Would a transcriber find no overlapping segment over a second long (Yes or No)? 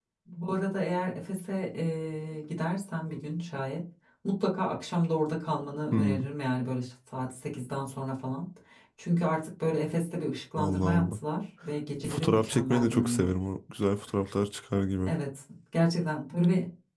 No